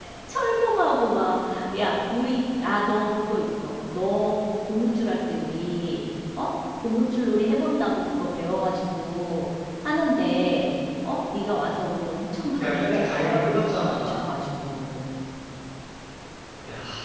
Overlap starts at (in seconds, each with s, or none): 12.6 s